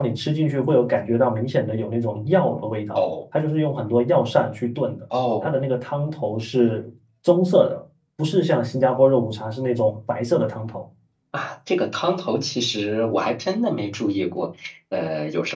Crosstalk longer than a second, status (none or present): none